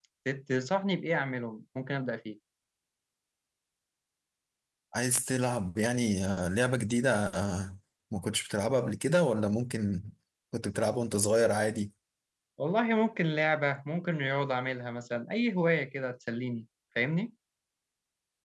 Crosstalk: none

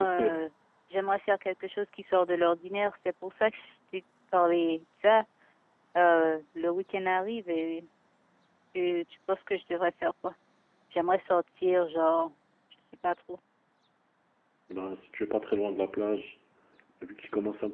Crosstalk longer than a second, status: none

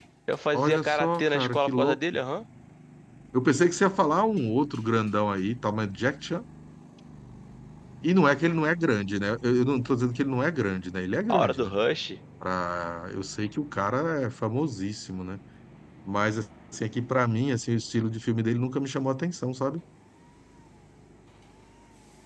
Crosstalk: present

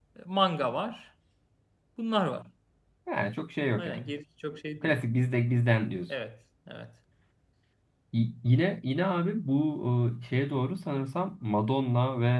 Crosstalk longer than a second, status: none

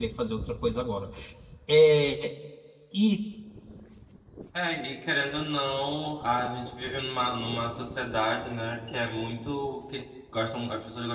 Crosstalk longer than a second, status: none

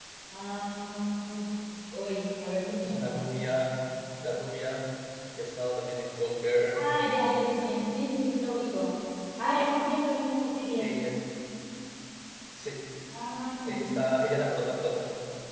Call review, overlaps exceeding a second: none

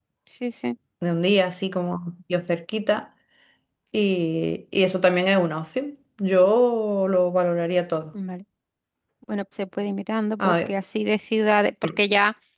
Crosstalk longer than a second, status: none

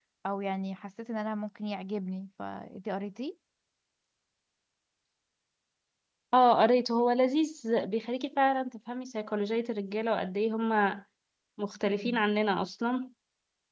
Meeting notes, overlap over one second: none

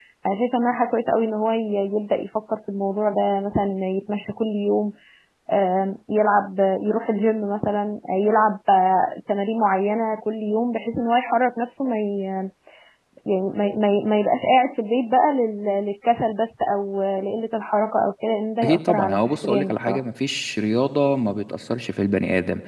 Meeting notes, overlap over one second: present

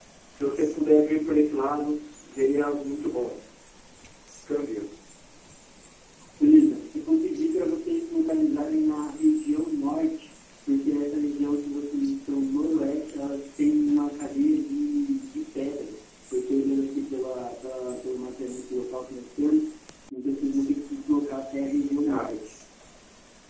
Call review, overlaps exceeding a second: none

